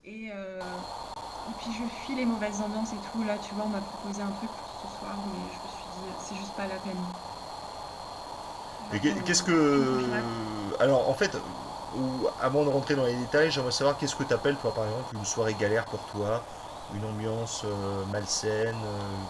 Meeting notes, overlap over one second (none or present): present